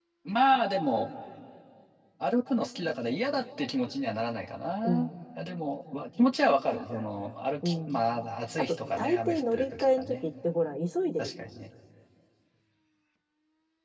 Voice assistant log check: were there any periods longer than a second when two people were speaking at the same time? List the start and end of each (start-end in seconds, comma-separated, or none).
8.6-10.2